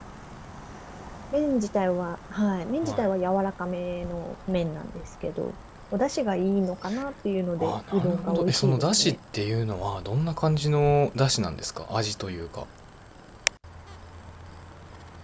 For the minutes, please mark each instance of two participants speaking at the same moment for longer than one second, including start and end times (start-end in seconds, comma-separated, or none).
7.6-9.2